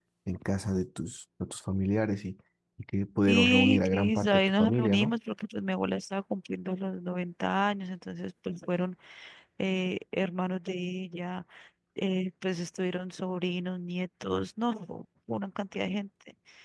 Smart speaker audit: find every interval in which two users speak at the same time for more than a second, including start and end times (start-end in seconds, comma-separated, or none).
3.3-5.2